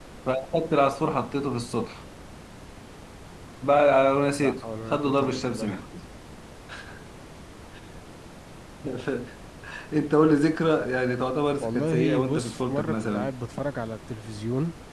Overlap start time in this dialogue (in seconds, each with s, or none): 4.4 s